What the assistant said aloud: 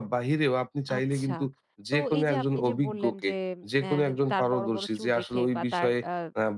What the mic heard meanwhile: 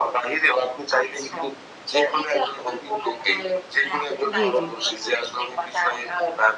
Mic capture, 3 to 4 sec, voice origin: echo only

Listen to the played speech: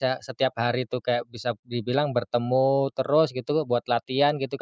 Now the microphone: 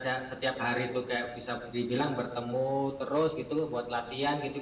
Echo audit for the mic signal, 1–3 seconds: echo only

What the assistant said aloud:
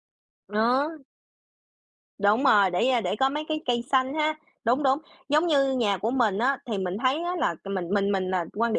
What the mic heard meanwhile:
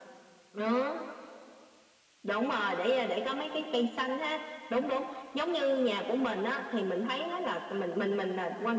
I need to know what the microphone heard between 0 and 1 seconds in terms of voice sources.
echo only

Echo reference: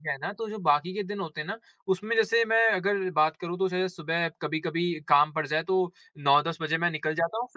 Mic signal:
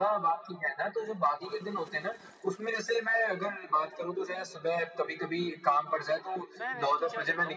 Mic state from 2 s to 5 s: echo only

